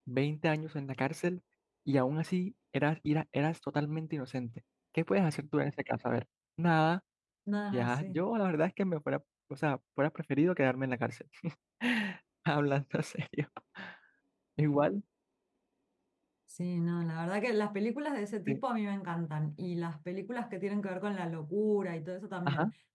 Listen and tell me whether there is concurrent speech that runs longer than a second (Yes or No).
No